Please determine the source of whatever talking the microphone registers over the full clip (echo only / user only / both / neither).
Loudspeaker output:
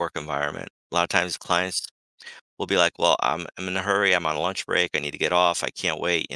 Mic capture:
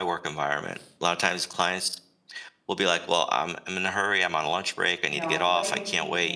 both